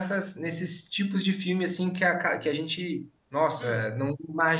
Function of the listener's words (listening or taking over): listening